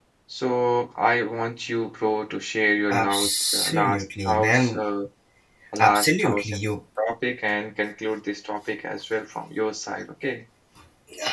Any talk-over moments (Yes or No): Yes